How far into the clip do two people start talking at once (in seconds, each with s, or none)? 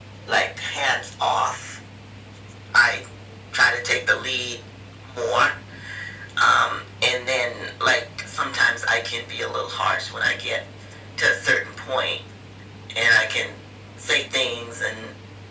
none